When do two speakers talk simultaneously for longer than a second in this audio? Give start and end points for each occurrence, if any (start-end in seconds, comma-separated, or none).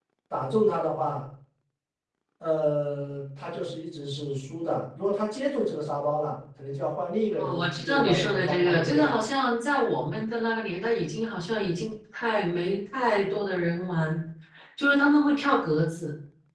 7.4-9.2